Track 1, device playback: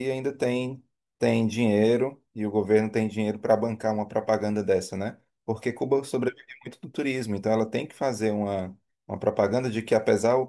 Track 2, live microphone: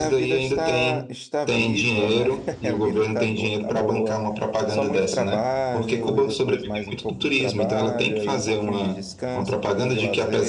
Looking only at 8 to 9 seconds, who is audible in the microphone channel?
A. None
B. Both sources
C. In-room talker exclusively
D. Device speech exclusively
B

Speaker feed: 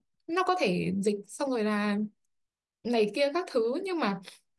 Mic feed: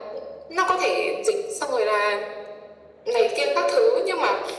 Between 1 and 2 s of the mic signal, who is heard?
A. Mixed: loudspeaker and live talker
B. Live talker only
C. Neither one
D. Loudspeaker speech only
D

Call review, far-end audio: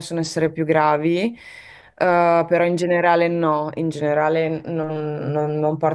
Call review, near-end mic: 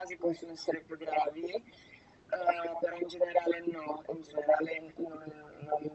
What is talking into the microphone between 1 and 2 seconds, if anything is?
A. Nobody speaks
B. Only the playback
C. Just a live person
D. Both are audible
B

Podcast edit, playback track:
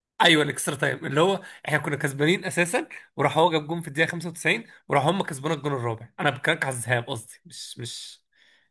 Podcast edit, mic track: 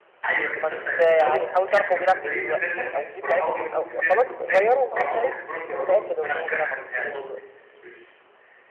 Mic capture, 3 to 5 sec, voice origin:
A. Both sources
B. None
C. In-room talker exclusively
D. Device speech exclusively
A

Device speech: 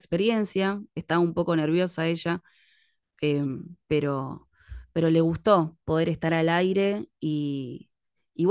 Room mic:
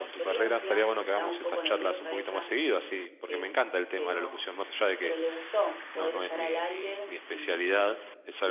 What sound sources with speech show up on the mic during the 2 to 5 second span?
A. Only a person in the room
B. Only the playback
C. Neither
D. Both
D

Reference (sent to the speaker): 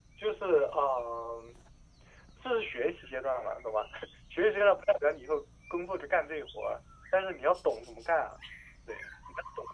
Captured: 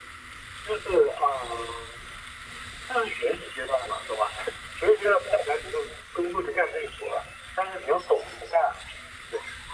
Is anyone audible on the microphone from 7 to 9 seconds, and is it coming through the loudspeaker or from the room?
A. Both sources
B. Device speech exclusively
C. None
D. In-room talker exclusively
B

